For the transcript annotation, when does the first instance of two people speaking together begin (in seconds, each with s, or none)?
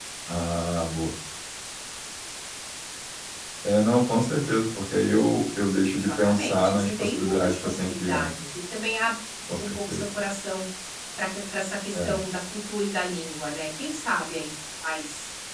5.9 s